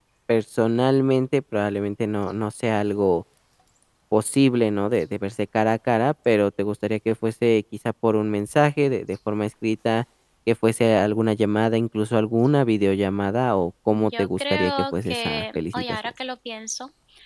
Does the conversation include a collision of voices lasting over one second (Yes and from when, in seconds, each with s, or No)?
Yes, from 13.9 s